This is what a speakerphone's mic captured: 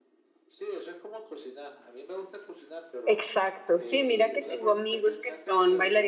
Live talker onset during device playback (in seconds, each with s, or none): 3.0 s